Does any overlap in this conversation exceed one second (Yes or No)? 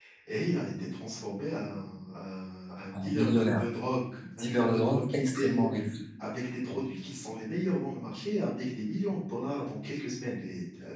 Yes